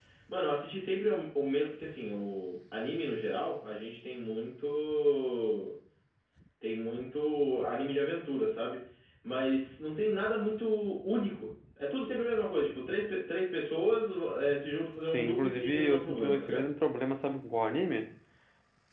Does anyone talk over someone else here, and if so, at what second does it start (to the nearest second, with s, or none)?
15 s